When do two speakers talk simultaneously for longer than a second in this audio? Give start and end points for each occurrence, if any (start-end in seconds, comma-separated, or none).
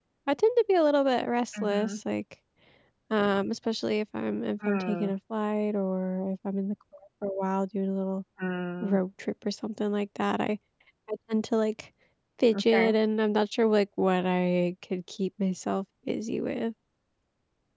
none